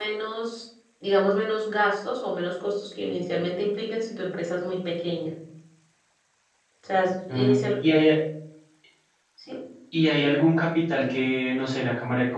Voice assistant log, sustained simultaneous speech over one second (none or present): none